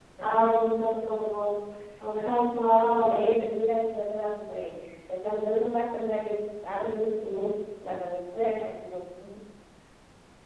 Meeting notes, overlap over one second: none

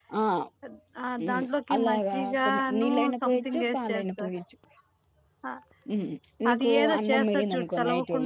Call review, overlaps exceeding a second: present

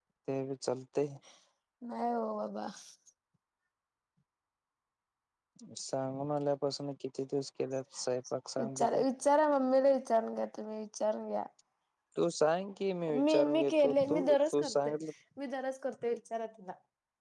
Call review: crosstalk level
present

